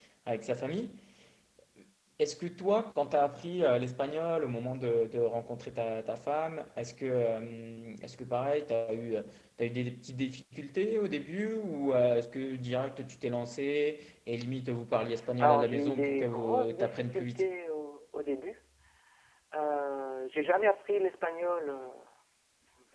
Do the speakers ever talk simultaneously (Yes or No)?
Yes